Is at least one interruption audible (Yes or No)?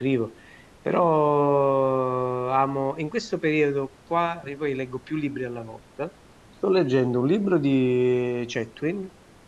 No